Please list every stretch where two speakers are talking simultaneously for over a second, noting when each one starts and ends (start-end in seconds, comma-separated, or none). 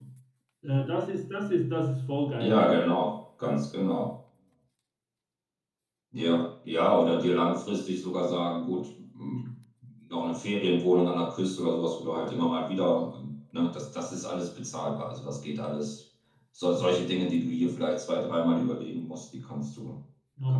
none